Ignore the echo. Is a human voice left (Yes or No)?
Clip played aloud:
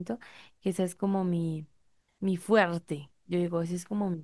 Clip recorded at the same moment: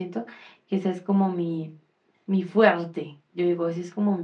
No